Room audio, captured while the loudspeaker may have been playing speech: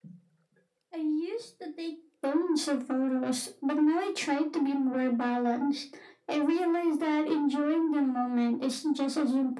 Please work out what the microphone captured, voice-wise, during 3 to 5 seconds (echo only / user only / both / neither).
echo only